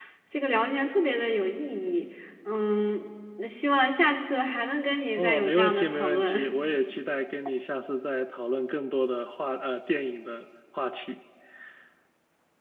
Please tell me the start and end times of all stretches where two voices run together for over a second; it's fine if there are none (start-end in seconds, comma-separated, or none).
5.2-6.4